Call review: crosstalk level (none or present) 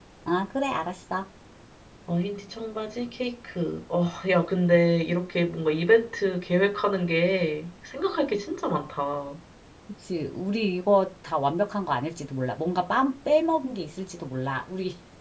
none